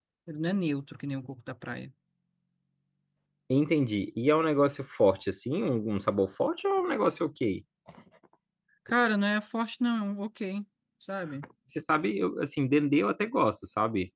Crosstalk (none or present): none